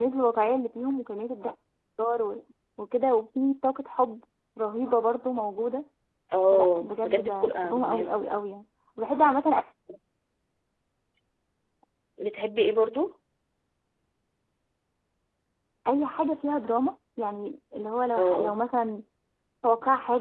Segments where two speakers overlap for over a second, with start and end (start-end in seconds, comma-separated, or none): 6.5-8.2